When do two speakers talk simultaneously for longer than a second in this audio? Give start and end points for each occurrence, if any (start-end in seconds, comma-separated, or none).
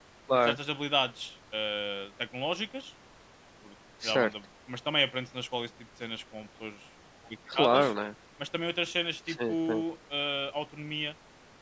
none